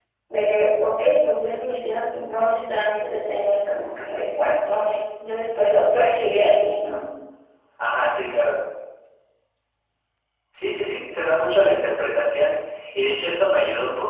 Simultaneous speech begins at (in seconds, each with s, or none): none